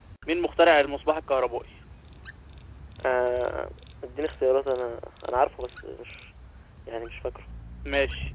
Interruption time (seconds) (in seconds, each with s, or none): none